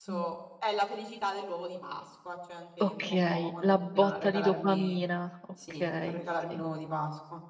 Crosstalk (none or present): present